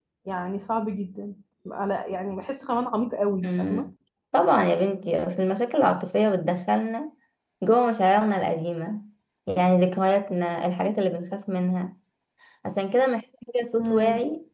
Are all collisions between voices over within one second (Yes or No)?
Yes